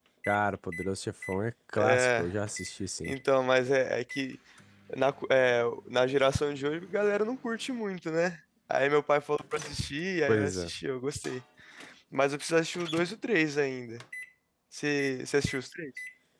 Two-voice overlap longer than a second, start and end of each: none

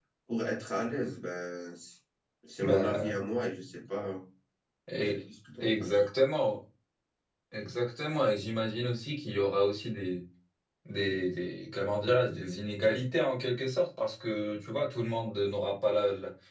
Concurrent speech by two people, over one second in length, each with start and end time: none

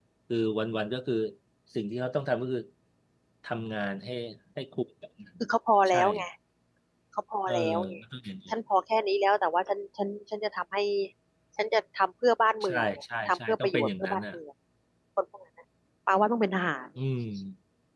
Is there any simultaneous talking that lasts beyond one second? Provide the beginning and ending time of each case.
12.6-14.3

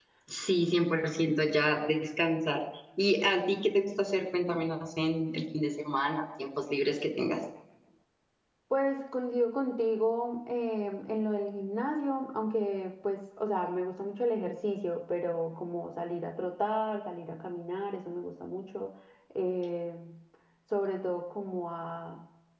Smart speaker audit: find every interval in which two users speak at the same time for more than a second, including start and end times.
none

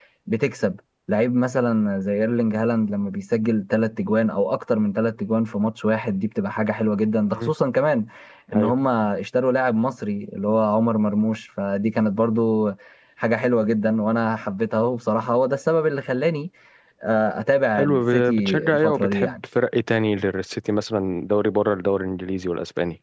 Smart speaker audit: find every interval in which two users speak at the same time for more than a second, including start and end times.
17.8-19.4

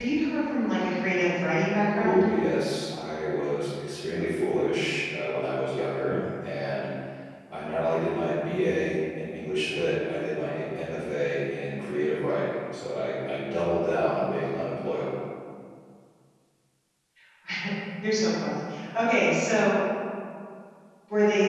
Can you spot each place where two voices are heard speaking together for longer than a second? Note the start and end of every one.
none

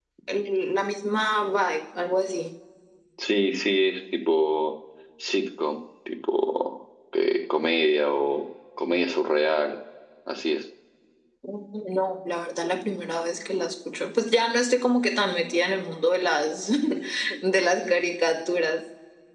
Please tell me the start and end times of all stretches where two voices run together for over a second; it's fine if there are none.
none

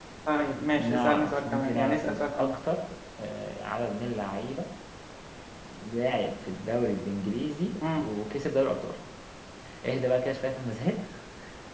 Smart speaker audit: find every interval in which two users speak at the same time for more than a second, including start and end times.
0.8-2.6

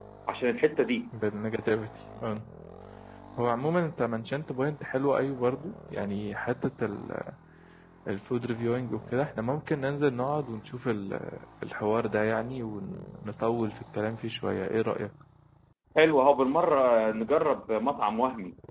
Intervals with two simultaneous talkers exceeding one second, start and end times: none

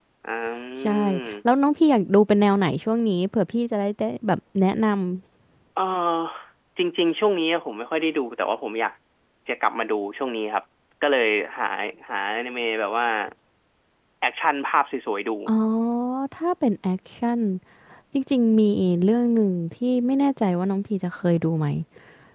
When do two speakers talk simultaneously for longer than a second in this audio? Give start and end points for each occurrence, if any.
none

